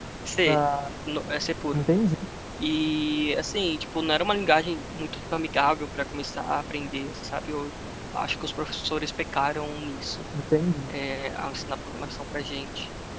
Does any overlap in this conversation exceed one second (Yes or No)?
No